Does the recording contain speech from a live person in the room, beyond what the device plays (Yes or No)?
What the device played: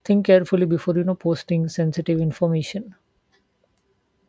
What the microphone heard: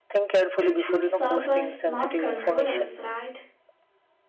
Yes